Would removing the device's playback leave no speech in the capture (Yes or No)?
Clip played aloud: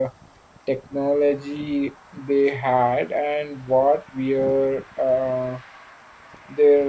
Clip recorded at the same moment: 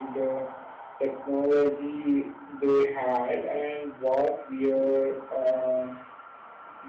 Yes